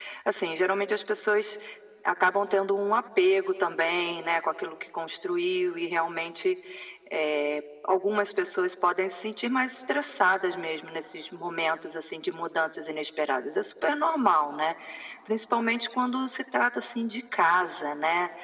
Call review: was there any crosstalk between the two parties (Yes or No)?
No